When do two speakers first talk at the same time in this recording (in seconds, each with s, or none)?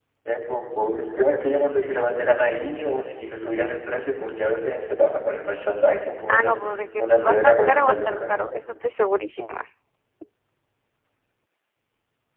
6.3 s